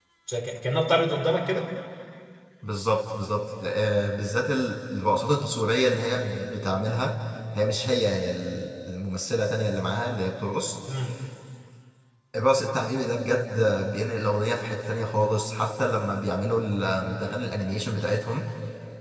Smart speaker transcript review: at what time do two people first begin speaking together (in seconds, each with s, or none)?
none